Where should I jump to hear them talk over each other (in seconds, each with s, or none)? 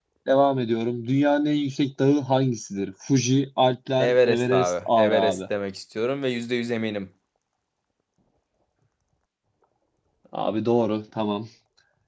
4.0 s